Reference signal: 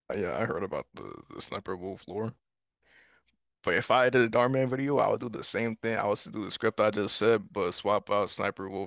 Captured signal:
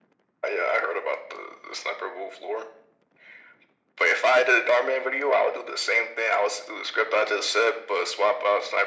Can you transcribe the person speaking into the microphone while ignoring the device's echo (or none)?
none